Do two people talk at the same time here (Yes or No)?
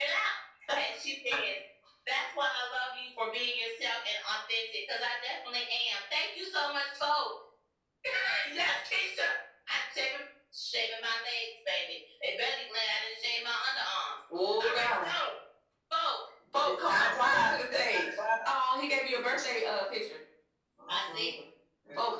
Yes